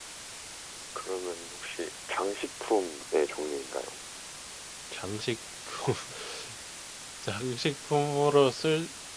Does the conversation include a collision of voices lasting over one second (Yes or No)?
No